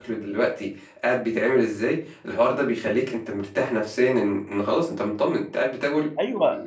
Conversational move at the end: taking over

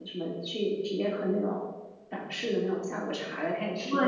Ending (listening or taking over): listening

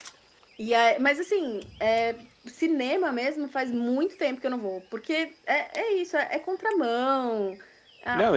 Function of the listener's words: taking over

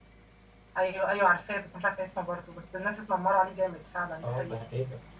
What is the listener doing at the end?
taking over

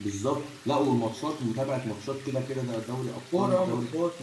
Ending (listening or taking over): taking over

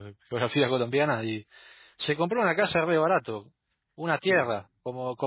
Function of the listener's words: listening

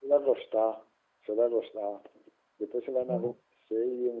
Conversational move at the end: listening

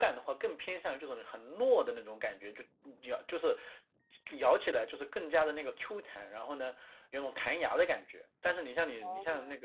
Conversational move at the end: listening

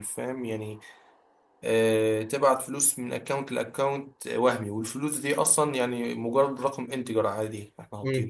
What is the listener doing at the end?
taking over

